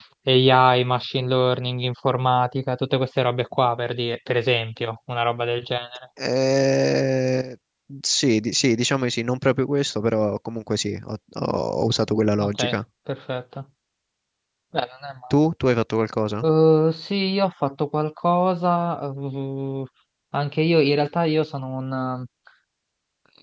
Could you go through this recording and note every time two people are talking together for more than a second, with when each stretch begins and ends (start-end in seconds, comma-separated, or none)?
none